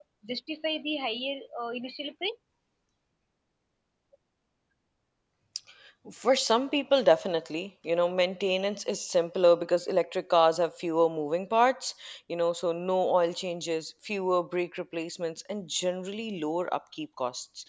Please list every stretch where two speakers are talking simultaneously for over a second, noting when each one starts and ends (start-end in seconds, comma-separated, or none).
none